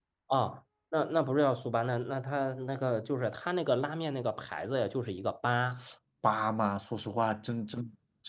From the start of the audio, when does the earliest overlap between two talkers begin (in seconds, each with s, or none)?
none